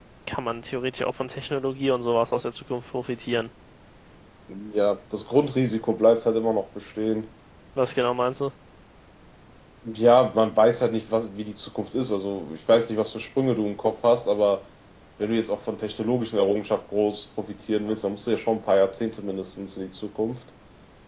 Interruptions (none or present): none